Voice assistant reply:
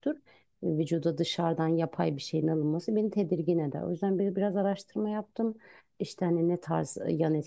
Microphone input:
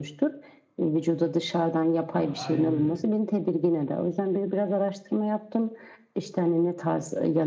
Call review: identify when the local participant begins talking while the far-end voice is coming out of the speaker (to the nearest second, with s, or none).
2 s